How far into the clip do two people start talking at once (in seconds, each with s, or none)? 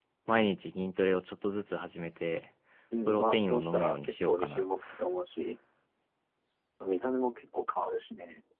3.1 s